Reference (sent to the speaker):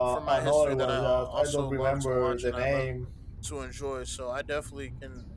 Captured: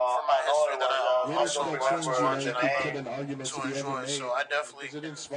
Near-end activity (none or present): present